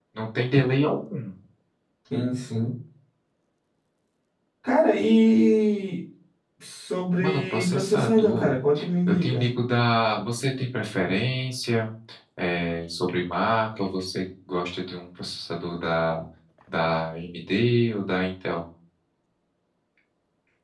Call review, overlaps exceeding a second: present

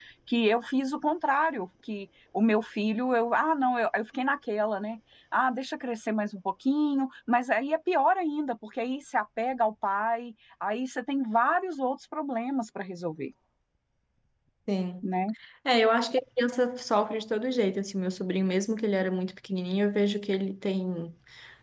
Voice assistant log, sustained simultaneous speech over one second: none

